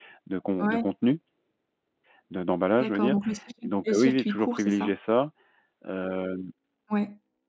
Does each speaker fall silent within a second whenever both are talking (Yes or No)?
No